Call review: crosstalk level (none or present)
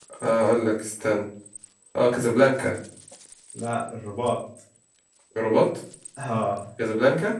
none